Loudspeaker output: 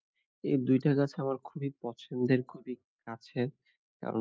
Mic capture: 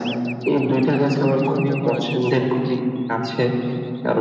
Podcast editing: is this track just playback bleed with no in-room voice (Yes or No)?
No